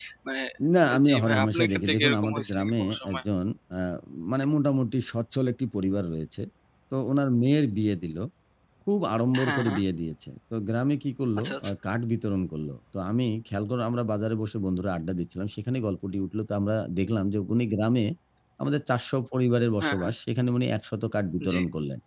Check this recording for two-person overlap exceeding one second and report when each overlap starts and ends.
1.0-3.2

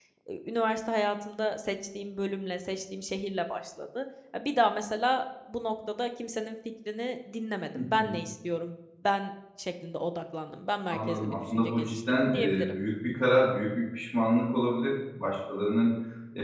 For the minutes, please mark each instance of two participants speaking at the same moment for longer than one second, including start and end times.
10.9-12.7

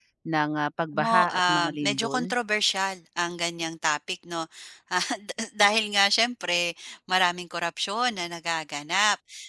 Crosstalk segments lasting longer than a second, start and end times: 0.9-2.2

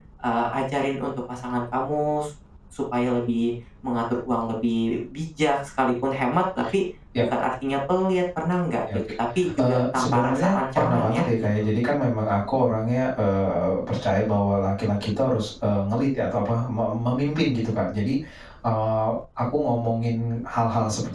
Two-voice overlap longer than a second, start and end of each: 9.6-11.3

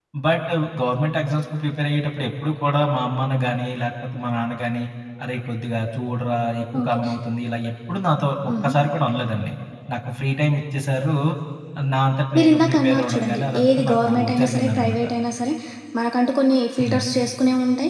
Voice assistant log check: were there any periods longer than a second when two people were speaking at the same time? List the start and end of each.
12.4-15.0

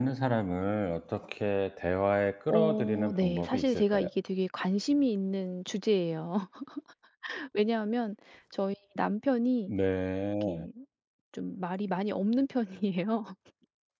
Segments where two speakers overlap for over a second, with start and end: 2.5-4.1

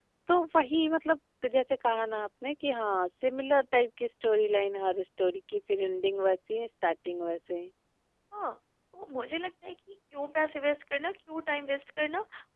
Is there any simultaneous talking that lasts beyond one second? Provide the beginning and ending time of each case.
none

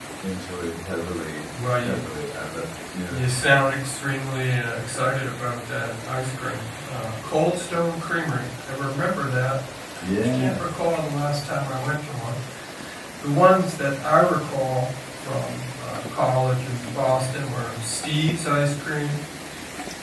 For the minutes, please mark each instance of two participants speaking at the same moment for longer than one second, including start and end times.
none

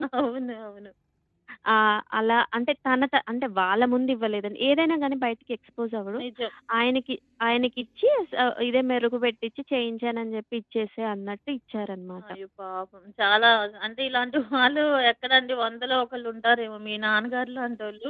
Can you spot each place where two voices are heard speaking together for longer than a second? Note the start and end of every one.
none

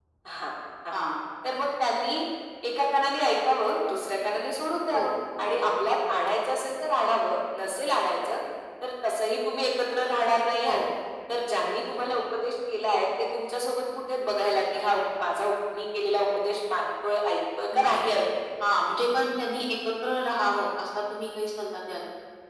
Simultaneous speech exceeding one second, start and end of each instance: none

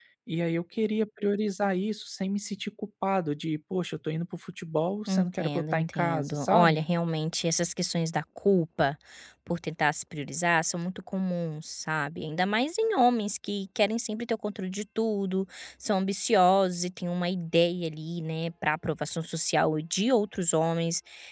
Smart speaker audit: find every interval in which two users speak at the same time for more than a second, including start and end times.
5.1-6.8

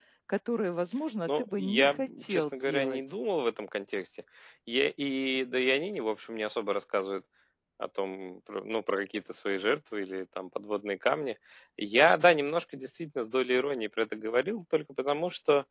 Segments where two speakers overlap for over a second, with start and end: 1.3-3.0

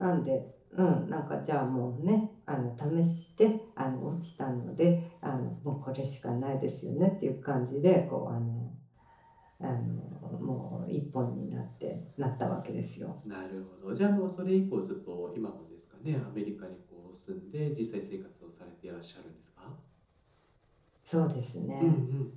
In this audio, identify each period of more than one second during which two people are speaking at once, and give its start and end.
none

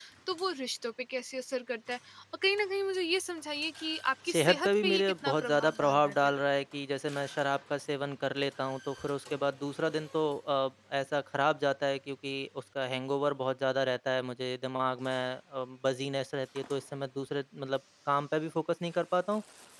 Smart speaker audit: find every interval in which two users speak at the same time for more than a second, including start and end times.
4.3-6.4

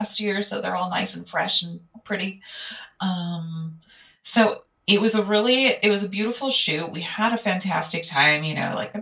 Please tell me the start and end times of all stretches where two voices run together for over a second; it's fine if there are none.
none

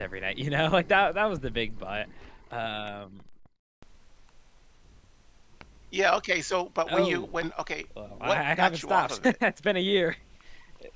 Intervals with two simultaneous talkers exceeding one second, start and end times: 8.1-9.3

